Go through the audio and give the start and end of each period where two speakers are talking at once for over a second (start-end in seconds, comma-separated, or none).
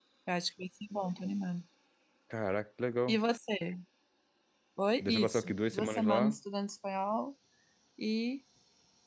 5.0-6.4